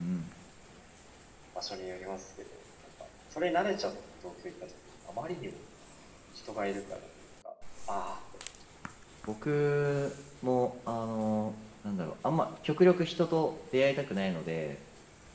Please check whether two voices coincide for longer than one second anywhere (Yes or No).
No